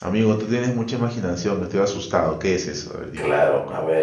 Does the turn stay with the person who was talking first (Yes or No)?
No